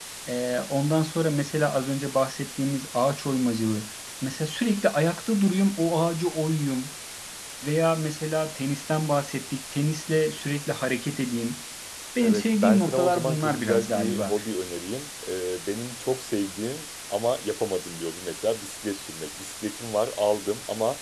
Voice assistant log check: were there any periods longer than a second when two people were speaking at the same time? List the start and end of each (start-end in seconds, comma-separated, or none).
12.2-14.3